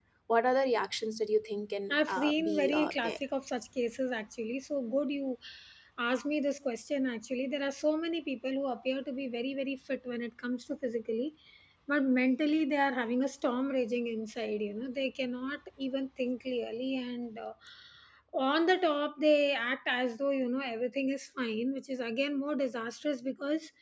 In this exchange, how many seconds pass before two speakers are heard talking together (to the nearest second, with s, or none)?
2 s